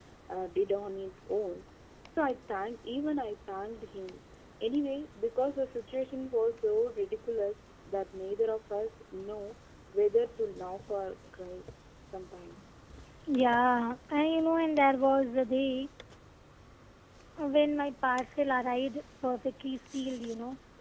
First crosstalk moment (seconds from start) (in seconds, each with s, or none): none